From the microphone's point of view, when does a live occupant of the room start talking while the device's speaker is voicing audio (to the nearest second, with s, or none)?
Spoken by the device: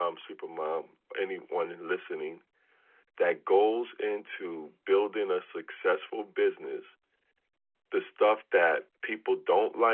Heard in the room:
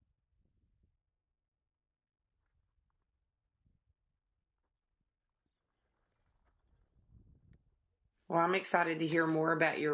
8 s